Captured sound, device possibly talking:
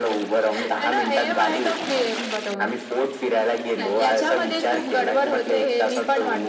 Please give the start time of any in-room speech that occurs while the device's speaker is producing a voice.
none

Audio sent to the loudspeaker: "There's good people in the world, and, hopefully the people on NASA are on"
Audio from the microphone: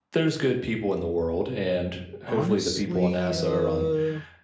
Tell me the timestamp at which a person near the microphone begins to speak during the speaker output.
2.2 s

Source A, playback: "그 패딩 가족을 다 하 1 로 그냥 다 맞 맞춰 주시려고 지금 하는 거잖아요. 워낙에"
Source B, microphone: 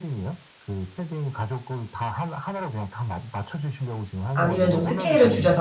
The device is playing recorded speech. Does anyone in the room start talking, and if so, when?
4.3 s

